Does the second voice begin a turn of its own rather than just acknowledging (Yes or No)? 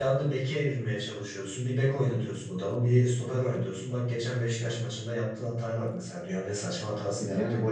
No